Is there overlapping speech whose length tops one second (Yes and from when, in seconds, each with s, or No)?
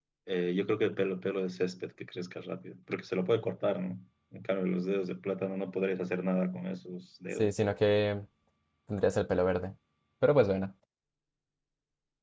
No